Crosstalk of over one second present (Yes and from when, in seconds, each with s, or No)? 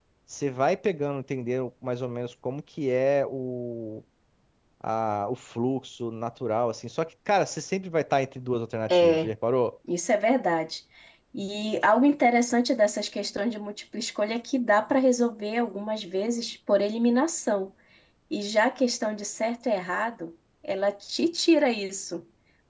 No